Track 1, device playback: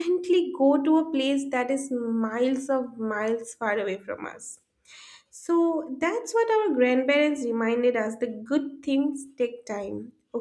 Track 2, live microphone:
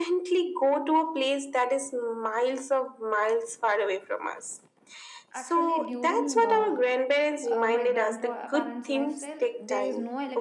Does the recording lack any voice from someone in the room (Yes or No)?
No